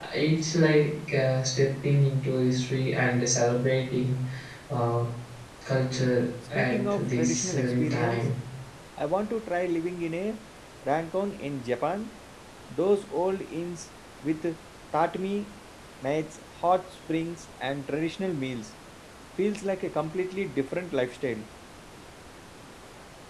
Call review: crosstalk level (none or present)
present